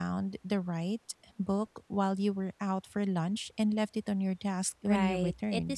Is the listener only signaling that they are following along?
No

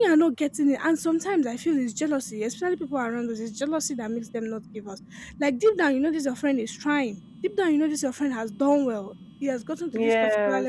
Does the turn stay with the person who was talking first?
Yes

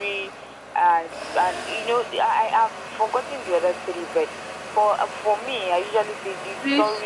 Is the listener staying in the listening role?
No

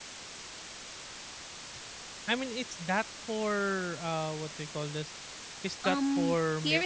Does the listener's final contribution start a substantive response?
Yes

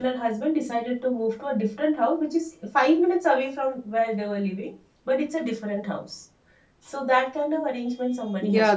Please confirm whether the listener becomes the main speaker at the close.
Yes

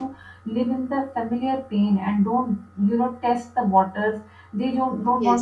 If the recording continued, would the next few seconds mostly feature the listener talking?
No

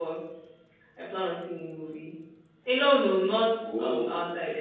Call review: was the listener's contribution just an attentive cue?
Yes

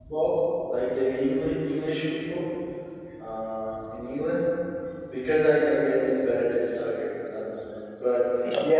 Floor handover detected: No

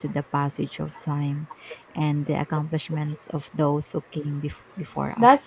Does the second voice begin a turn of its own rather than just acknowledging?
Yes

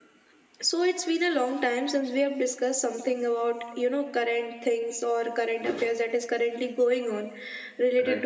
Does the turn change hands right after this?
No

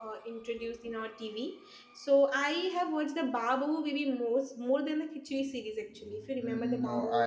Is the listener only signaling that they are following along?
No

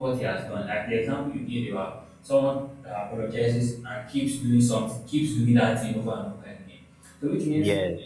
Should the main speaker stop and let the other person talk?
No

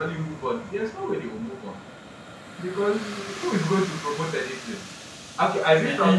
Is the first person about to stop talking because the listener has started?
No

